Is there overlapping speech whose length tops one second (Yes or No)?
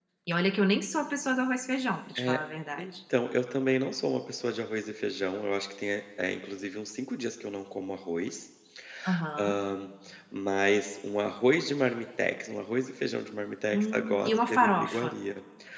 Yes